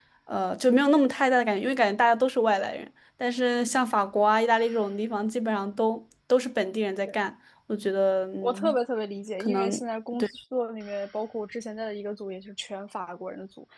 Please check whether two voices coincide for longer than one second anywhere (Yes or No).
No